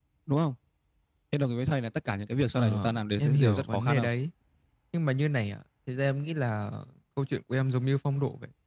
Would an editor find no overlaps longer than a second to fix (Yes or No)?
No